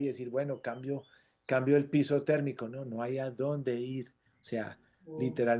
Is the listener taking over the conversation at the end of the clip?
No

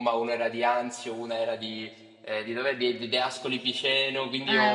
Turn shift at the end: No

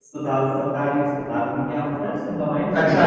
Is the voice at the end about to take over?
Yes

